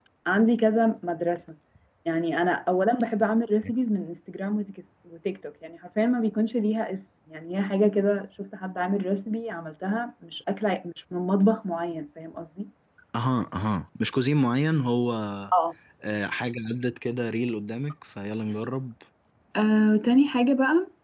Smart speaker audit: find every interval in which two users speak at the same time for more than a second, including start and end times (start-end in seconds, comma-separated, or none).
none